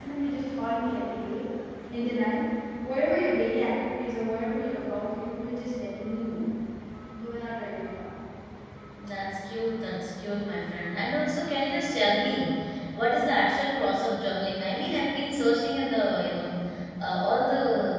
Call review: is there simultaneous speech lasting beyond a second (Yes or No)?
No